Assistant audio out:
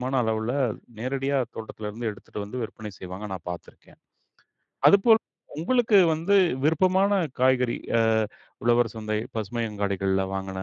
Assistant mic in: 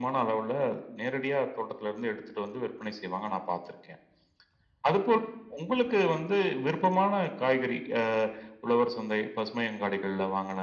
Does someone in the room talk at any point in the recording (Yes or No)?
No